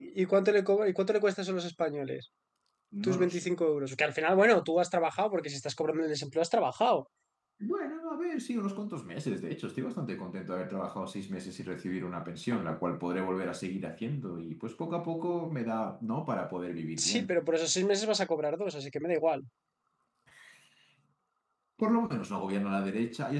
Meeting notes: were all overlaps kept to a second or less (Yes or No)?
Yes